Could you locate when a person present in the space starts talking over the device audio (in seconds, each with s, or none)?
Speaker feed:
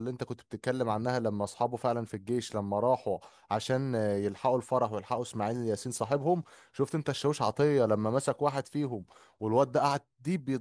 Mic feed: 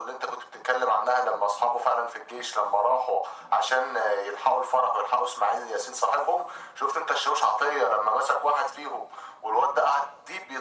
none